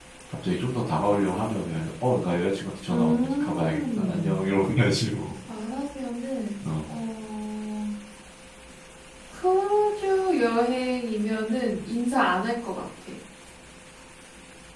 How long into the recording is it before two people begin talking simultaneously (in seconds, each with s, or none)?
2.9 s